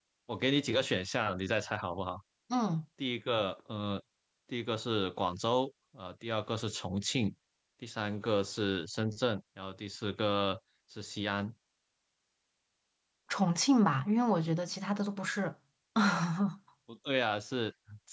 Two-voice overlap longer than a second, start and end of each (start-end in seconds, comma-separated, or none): none